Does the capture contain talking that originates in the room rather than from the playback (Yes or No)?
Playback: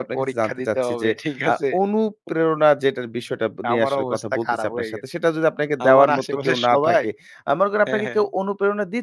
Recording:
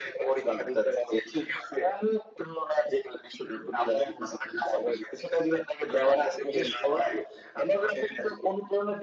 No